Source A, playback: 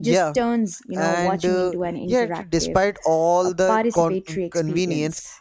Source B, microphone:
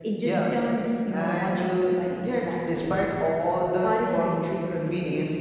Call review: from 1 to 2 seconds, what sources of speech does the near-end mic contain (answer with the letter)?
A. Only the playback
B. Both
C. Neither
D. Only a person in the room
A